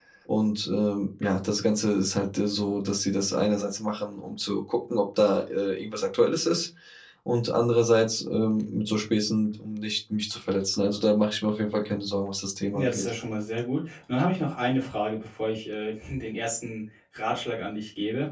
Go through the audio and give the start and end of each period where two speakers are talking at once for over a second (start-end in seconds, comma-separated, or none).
none